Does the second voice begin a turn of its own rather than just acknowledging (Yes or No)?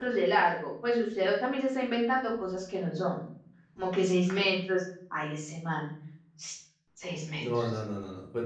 Yes